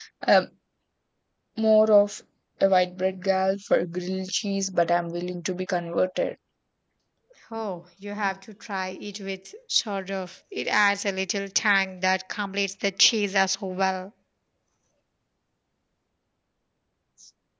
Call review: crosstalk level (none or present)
none